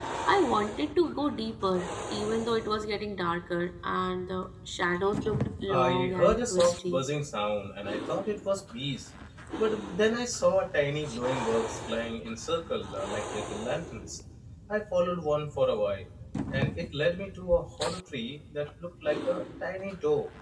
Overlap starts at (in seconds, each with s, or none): 5.7 s